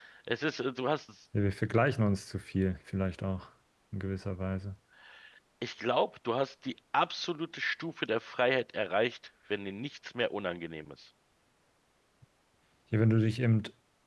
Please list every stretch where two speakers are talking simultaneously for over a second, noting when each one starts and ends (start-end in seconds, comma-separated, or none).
none